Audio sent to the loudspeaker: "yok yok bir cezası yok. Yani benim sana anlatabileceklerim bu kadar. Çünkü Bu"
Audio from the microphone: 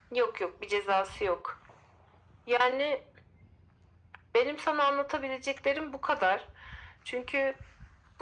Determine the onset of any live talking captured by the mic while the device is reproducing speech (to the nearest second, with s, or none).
none